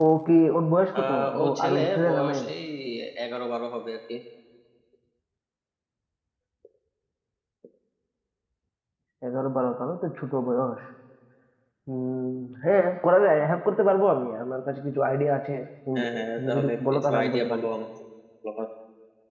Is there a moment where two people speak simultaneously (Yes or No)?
Yes